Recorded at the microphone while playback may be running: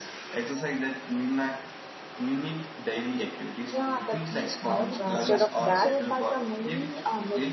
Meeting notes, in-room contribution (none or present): present